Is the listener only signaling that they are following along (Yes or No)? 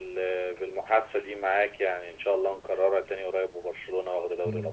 No